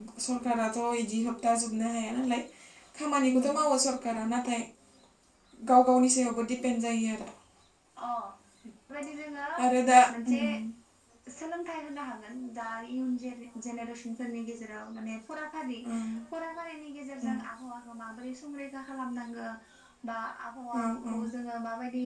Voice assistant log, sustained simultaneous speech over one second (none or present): none